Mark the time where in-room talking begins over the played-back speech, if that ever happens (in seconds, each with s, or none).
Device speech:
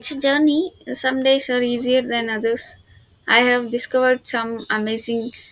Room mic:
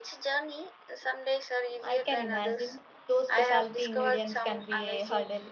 1.8 s